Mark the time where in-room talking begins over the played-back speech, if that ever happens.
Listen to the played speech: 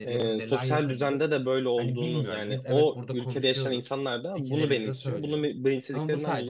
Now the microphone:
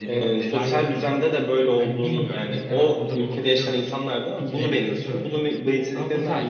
none

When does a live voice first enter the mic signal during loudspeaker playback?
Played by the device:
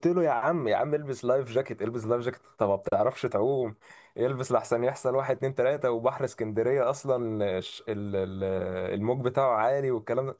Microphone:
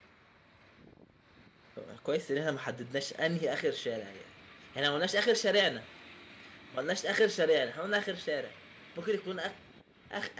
1.7 s

